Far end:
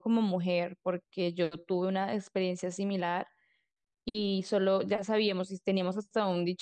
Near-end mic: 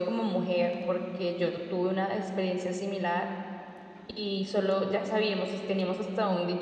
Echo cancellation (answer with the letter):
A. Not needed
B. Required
B